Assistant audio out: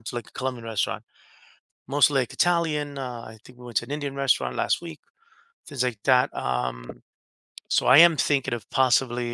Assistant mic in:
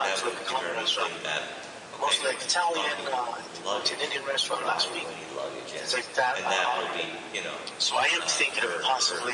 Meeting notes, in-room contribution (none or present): present